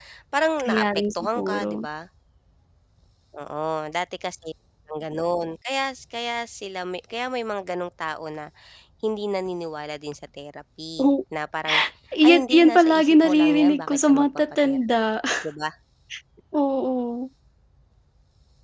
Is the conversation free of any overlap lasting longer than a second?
No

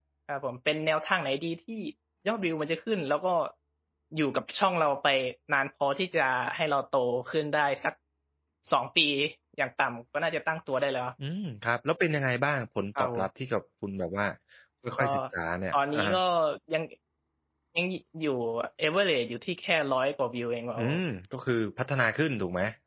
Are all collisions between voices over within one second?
Yes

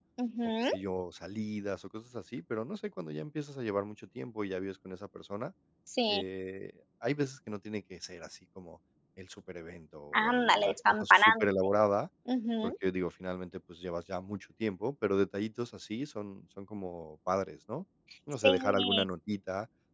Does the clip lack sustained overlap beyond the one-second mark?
No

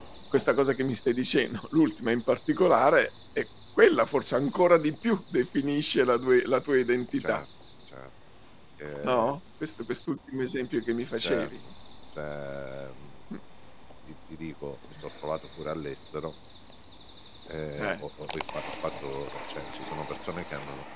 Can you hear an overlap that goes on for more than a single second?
No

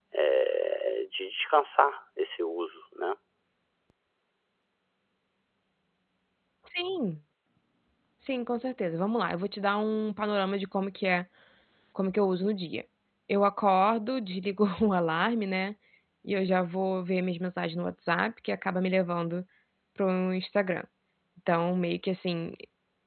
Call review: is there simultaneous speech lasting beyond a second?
No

